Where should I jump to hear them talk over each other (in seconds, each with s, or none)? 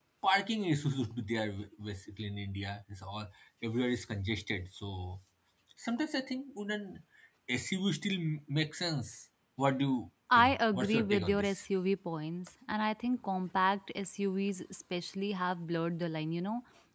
10.3 s